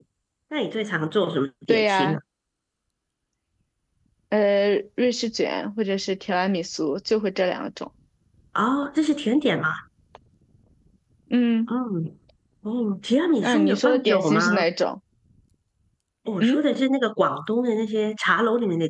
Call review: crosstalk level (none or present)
present